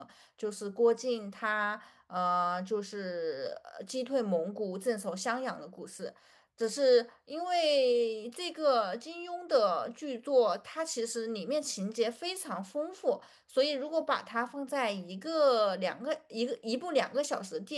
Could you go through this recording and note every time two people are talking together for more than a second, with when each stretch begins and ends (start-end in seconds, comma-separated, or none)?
none